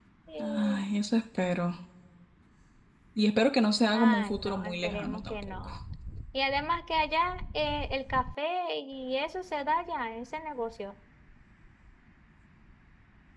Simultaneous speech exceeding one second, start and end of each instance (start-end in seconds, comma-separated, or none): 3.9-5.7